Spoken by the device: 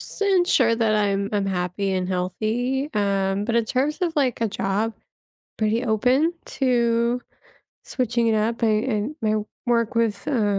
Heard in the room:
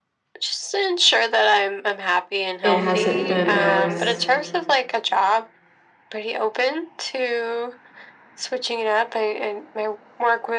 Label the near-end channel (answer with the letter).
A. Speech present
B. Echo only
A